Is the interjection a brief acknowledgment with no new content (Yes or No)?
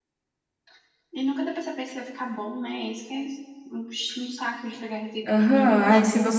No